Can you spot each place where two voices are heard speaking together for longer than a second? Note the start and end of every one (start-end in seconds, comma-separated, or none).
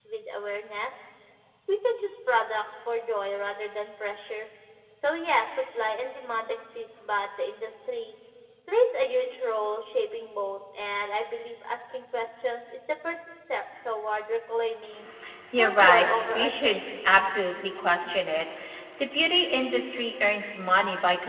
15.6-17.2